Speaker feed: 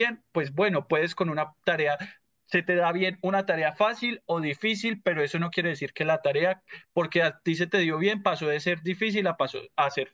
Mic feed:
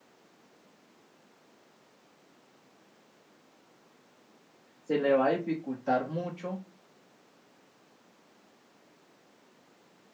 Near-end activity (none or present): present